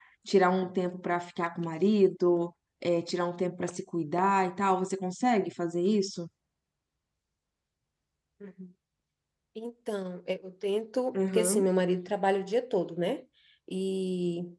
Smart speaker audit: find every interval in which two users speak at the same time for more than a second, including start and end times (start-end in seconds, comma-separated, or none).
none